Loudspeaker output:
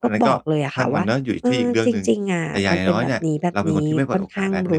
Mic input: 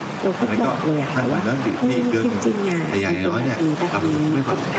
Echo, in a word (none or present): present